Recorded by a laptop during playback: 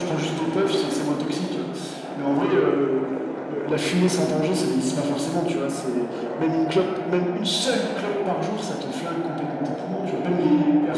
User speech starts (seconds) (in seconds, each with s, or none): none